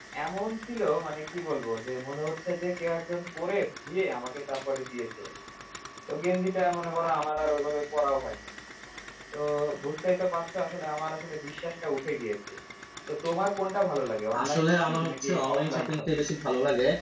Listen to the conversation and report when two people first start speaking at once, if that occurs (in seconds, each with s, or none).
14.3 s